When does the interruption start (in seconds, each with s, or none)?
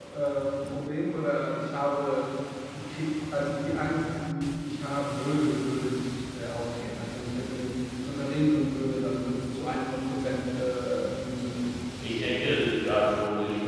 none